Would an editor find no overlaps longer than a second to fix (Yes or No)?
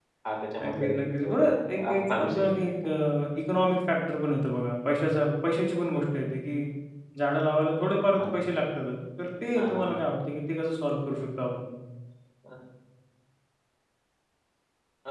No